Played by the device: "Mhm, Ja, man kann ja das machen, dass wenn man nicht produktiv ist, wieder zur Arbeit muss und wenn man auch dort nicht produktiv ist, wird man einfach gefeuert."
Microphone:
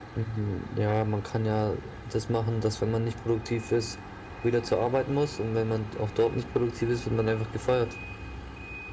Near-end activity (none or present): none